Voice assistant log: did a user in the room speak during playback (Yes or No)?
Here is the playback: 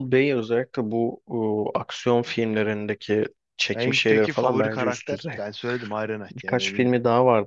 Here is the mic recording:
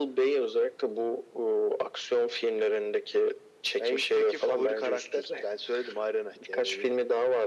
No